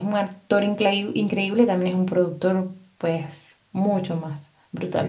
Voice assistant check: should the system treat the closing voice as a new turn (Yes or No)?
Yes